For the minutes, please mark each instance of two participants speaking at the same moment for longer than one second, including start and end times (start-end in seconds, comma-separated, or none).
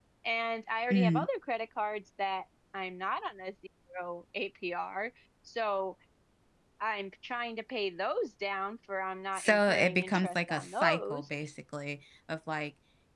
9.3-11.3